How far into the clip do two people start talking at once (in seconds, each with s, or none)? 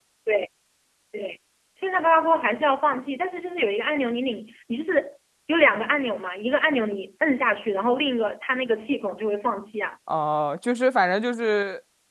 none